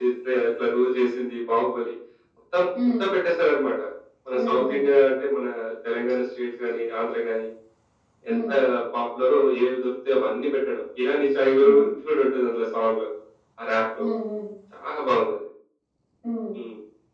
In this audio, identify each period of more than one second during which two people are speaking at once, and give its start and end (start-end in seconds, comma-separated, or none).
none